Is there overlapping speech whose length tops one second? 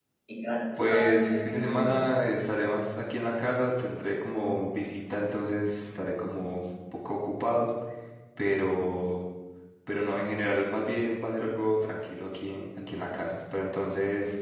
Yes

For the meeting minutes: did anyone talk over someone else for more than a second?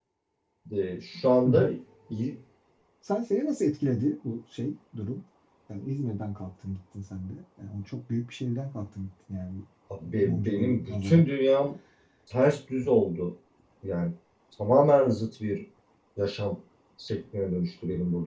Yes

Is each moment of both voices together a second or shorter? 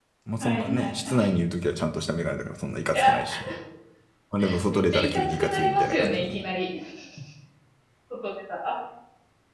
No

